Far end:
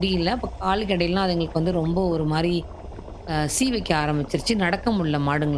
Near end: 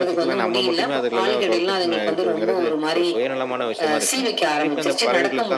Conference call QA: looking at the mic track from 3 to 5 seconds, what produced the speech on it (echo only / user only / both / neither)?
both